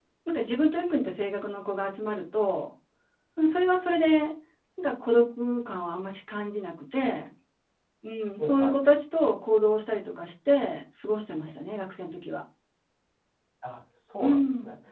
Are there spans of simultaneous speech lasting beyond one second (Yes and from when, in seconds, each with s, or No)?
No